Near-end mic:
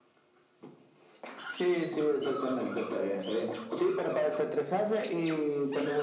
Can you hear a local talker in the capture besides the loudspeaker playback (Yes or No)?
No